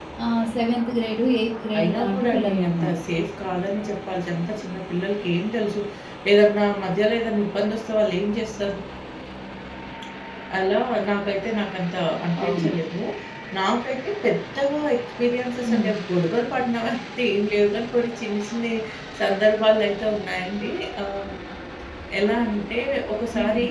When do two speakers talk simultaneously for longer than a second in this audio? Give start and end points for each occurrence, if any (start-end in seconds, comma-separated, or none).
1.8-3.0